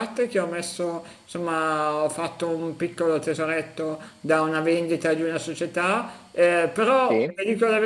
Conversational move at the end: listening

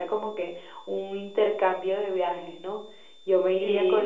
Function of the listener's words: listening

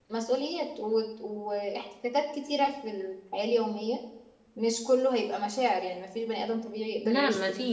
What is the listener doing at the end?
taking over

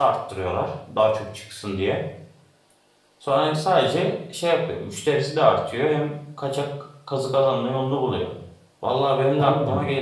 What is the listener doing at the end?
listening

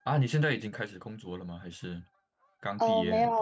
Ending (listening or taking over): taking over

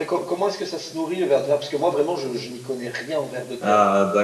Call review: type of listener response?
taking over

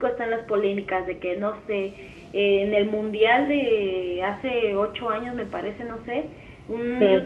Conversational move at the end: listening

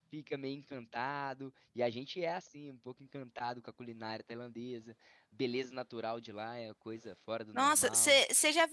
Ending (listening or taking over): taking over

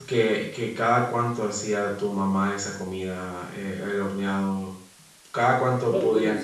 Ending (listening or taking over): taking over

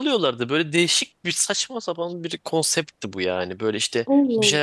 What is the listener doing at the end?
listening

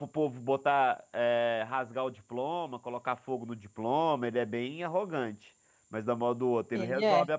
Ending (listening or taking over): listening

